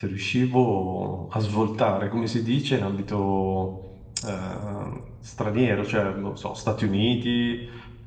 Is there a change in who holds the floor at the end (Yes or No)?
No